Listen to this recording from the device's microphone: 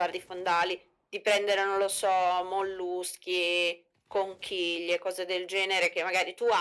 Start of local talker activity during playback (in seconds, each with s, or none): none